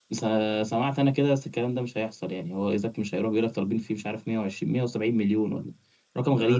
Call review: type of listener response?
taking over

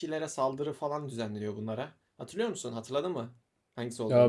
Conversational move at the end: taking over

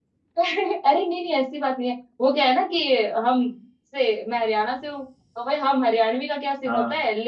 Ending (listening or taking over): listening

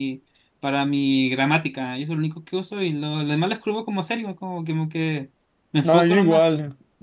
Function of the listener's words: taking over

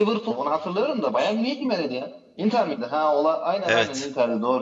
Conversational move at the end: taking over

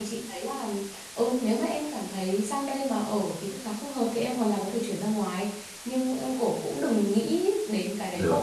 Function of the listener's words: listening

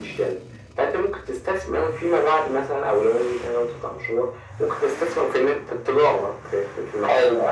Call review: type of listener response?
taking over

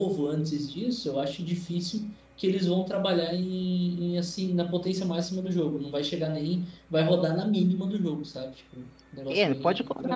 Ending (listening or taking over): taking over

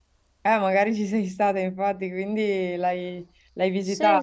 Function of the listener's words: taking over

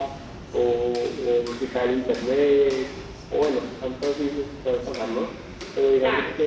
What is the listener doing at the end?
listening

